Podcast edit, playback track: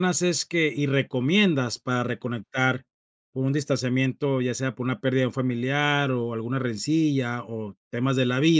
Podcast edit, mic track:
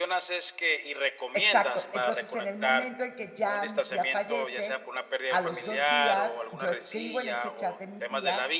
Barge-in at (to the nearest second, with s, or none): 1 s